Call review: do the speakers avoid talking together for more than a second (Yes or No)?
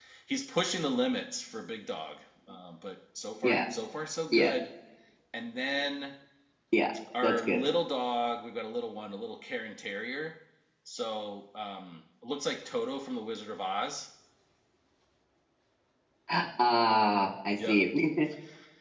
Yes